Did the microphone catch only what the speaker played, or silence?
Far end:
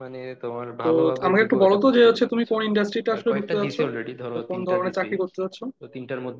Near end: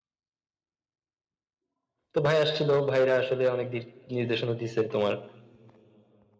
No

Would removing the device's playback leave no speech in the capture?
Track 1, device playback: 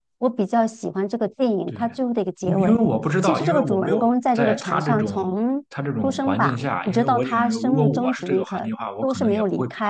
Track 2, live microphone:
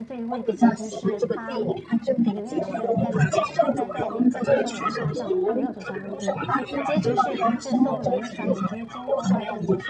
No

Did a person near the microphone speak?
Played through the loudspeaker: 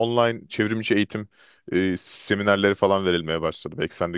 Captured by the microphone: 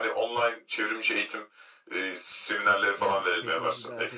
Yes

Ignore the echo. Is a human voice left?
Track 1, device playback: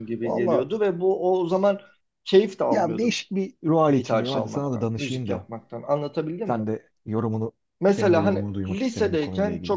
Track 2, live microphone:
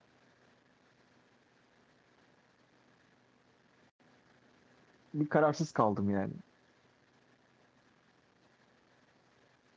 Yes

